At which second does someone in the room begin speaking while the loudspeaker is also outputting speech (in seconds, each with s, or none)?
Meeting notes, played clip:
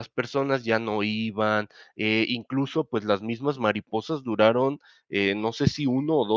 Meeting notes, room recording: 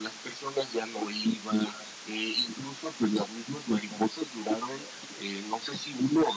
none